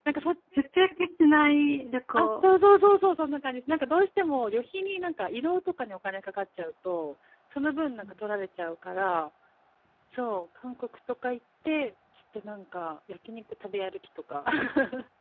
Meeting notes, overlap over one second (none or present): none